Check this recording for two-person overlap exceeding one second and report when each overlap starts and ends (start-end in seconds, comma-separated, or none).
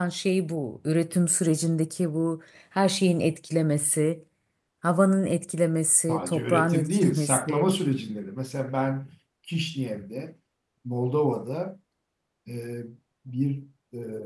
6.1-7.7